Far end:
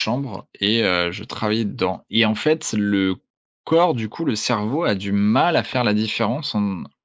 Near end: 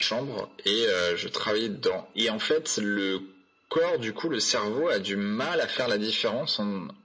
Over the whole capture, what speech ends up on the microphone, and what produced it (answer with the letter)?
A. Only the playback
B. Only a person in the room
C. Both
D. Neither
A